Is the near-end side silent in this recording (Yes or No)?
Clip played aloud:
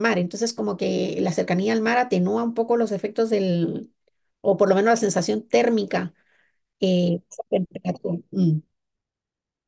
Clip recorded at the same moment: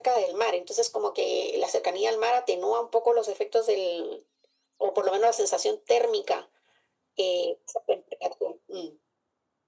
Yes